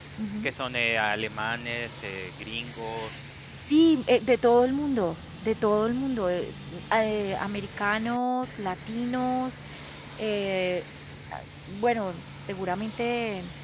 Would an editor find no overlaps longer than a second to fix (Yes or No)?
Yes